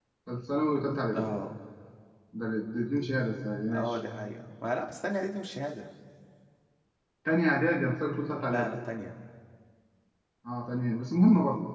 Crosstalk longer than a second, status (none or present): none